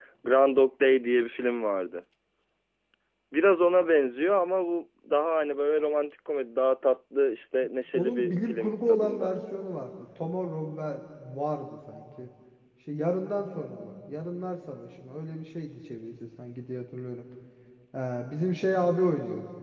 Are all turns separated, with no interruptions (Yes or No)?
No